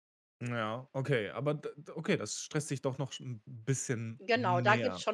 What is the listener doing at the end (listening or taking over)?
taking over